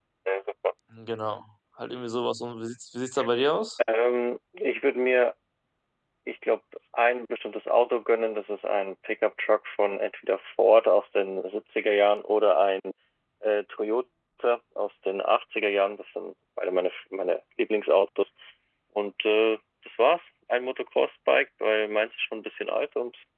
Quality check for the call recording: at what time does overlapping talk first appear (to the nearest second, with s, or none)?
none